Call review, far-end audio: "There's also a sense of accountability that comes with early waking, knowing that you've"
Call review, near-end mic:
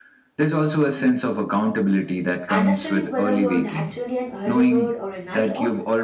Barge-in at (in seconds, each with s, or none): 2.5 s